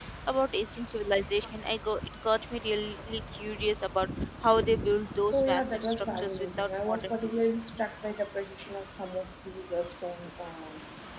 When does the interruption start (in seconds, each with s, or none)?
5.3 s